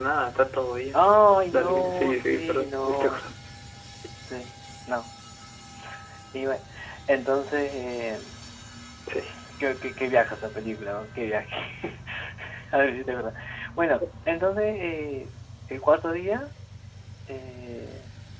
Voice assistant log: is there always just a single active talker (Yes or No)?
No